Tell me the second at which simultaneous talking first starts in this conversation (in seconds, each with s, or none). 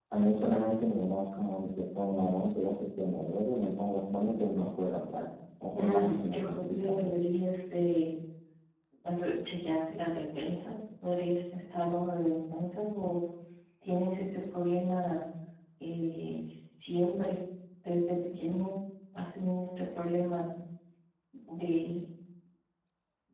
5.7 s